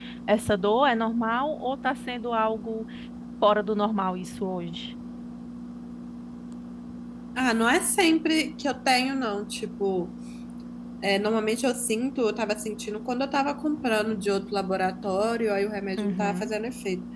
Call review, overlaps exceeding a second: none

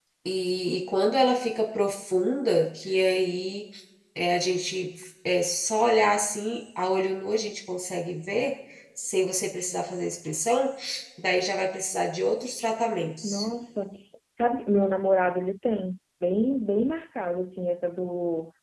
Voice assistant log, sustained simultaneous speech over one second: none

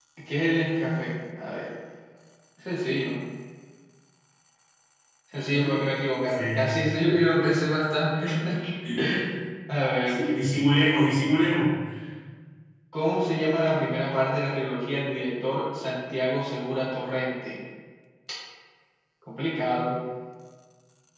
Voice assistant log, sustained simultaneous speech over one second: none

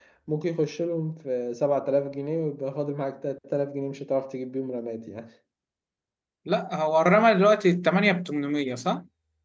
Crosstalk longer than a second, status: none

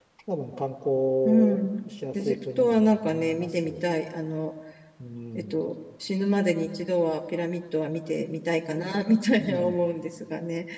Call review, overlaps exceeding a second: present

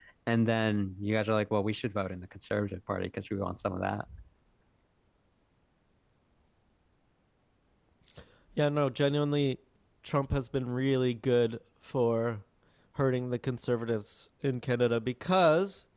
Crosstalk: none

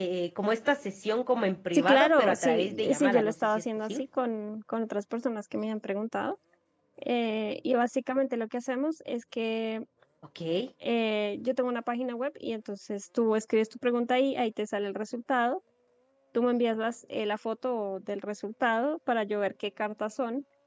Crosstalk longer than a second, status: present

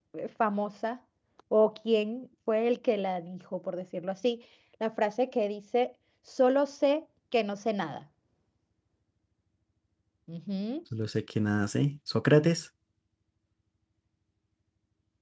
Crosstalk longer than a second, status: none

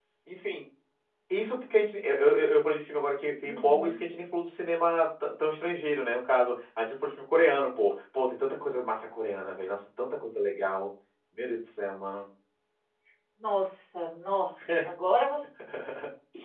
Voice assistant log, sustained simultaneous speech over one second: none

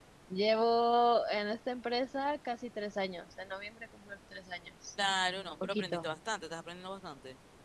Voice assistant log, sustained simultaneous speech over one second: none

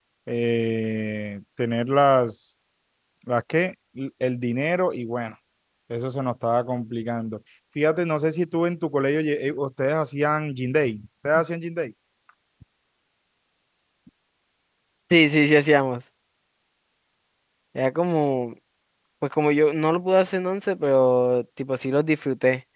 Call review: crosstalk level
none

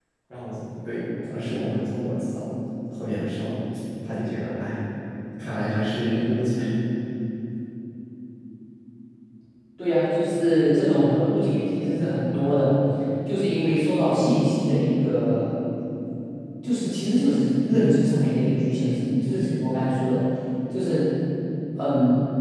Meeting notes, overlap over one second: none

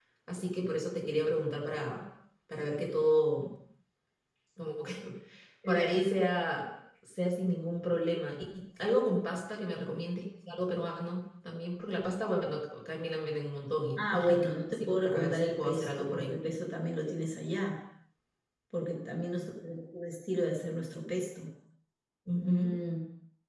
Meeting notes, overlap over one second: present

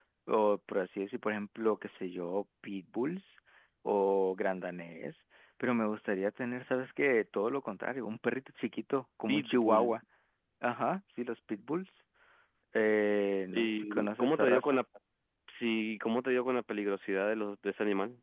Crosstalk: present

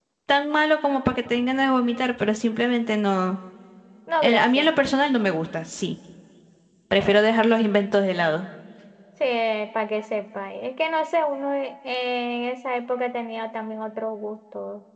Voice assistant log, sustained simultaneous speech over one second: none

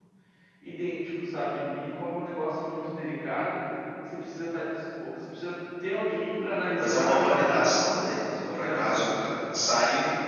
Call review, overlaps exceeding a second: present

